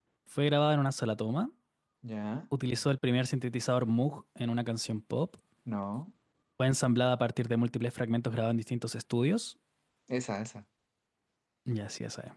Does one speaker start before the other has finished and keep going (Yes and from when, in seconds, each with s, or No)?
No